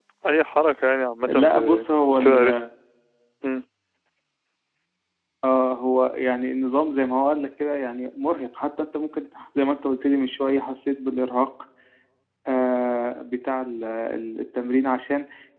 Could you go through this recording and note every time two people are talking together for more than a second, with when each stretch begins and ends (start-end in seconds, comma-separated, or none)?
1.3-2.6